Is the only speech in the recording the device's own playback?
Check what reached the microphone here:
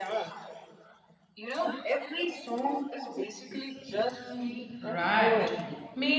No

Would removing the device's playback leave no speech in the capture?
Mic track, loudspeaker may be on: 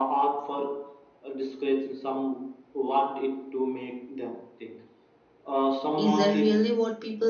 No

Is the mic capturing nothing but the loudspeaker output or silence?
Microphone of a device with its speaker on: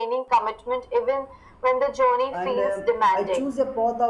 No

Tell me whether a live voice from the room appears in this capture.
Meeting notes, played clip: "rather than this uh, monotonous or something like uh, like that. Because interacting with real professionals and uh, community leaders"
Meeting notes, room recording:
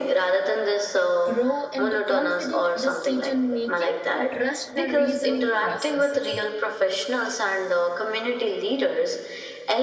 Yes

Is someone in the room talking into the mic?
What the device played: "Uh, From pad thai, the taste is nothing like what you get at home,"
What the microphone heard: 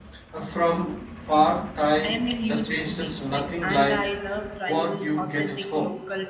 Yes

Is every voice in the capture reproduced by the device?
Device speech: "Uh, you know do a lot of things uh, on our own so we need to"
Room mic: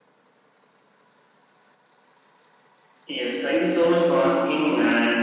No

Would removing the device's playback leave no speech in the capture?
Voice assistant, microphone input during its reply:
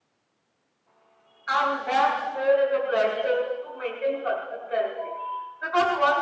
Yes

